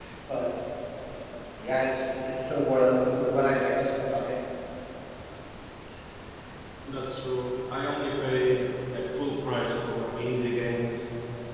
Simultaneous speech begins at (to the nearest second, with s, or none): none